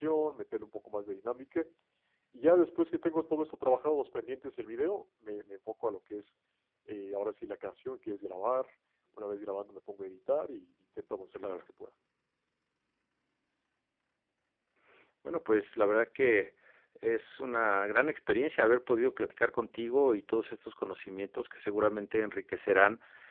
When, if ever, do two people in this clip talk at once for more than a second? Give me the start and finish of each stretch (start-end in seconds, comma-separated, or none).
none